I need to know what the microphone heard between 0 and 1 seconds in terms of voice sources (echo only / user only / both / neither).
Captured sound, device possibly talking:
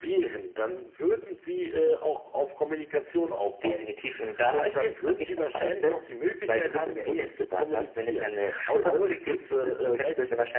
echo only